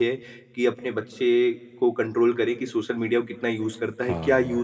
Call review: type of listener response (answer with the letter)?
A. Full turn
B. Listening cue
B